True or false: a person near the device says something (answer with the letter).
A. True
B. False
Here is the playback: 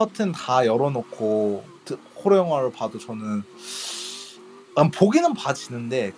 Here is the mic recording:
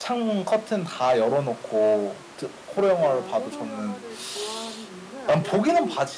A